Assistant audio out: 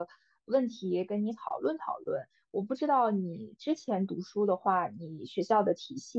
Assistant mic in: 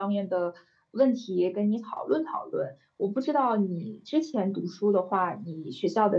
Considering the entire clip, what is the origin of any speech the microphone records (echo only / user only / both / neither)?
echo only